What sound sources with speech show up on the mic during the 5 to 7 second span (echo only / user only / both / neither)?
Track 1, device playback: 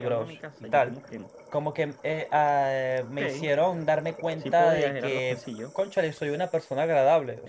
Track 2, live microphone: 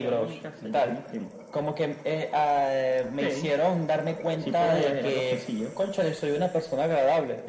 echo only